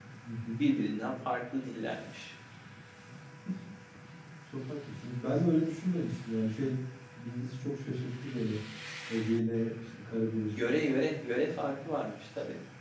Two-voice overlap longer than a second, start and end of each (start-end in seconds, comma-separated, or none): none